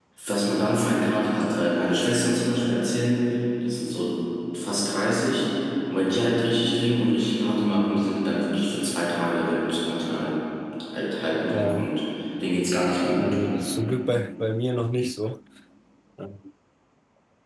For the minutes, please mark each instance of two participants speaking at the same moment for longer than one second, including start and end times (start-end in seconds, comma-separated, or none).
none